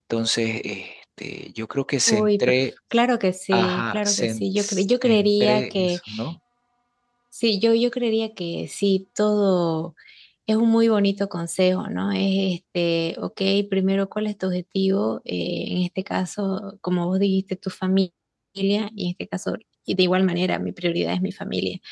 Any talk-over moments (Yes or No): Yes